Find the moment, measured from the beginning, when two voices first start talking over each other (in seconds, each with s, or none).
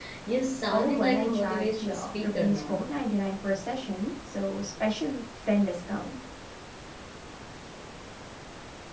0.7 s